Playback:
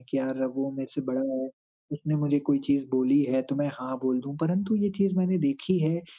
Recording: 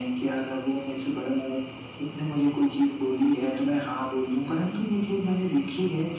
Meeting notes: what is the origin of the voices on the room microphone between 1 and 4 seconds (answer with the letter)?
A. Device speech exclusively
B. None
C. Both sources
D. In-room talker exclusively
A